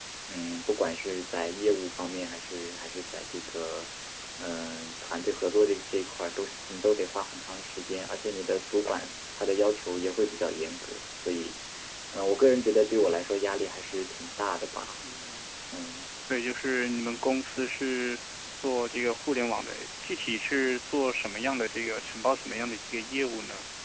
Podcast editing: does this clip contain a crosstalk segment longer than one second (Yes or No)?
No